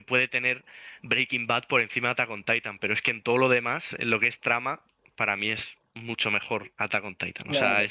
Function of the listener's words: taking over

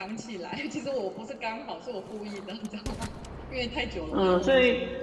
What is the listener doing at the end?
taking over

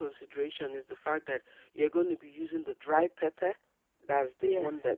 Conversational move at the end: listening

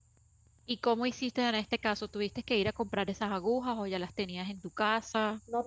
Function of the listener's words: taking over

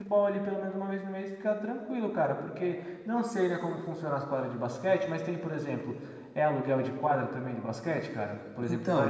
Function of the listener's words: taking over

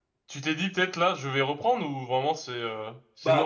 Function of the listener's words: taking over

